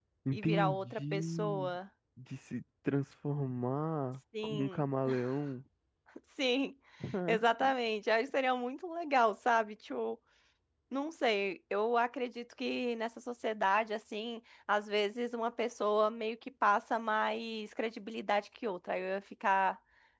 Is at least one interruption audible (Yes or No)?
Yes